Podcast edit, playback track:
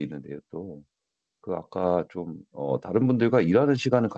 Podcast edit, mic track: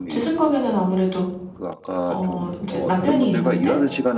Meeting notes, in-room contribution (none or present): present